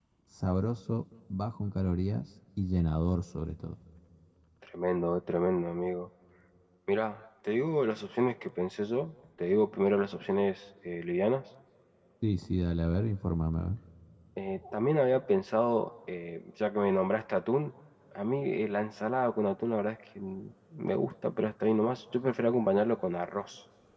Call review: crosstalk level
none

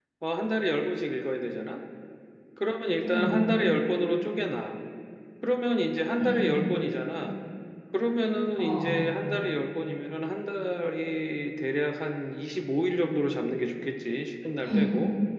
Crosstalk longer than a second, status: none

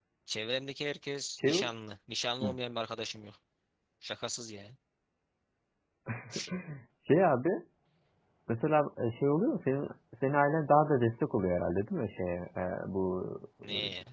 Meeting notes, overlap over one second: none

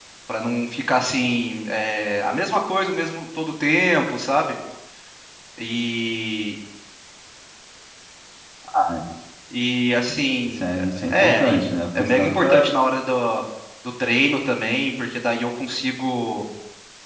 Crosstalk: present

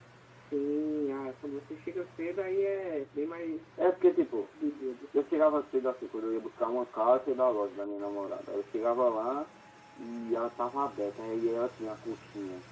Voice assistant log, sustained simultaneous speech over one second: none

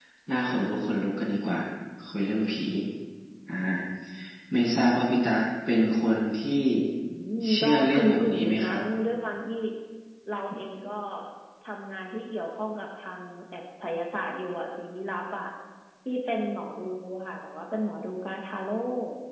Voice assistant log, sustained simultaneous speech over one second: present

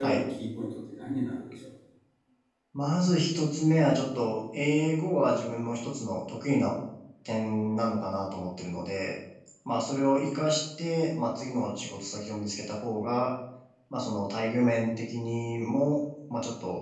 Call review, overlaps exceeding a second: none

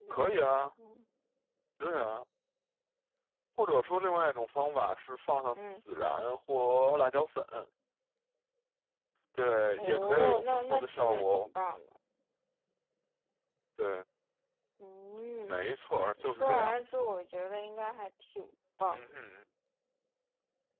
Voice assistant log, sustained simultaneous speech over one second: present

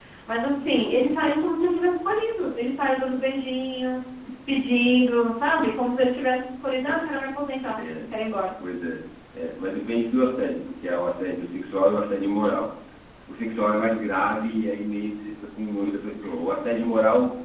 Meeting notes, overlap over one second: none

